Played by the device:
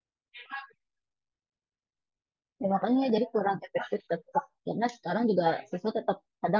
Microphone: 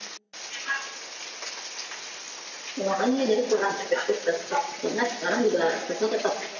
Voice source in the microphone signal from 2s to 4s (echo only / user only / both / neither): echo only